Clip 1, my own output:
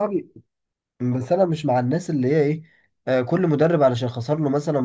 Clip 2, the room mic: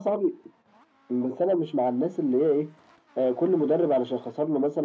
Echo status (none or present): present